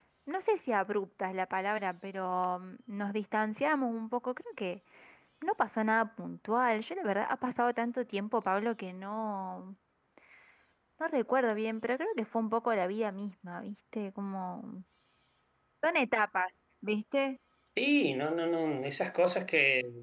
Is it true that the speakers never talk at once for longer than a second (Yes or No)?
Yes